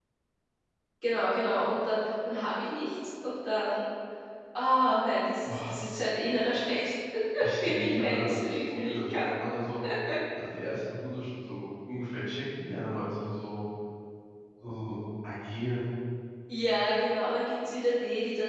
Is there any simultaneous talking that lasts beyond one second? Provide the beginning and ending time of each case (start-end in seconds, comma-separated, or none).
7.6-9.4